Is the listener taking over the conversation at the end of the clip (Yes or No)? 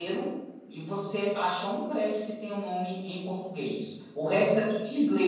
No